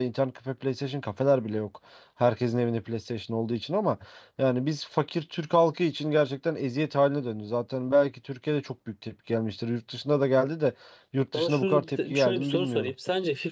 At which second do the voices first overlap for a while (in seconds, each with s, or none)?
11.3 s